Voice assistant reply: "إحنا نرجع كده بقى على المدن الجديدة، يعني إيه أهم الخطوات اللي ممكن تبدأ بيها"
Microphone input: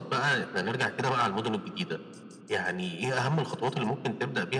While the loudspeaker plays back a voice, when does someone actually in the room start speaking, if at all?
none

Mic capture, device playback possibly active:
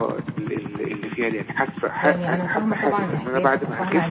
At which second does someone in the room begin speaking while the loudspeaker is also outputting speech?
2 s

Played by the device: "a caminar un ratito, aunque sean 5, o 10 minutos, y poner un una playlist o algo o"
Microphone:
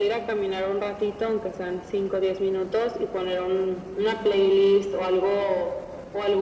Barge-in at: none

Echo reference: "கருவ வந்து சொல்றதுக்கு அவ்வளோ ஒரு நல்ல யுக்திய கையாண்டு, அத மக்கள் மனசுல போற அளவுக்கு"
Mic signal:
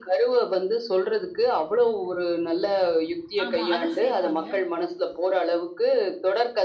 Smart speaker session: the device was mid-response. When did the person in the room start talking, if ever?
3 s

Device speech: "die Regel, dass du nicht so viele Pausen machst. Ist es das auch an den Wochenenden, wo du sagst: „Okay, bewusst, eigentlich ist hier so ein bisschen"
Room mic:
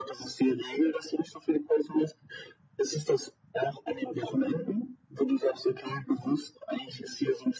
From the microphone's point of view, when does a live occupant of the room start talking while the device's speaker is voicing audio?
none

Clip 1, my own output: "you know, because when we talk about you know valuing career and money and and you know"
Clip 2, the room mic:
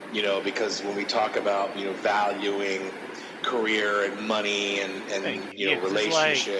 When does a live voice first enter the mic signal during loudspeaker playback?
5 s

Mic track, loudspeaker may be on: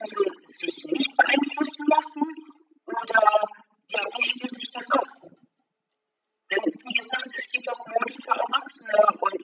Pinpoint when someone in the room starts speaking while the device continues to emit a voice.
none

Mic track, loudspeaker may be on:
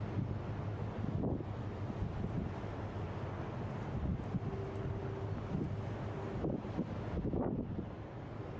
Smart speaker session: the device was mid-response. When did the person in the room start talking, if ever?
none

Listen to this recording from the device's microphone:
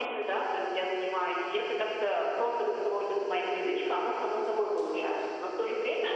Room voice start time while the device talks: none

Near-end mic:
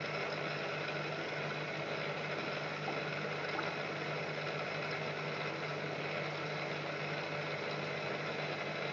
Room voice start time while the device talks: none

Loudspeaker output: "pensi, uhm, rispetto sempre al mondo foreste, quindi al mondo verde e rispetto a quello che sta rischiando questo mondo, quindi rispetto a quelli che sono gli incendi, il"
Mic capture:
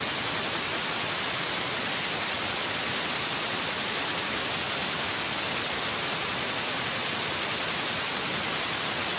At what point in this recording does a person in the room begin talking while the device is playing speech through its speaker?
none

